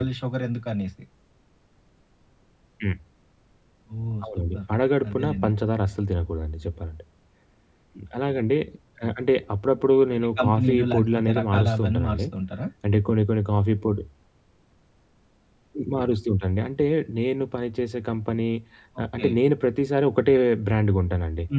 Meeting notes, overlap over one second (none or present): present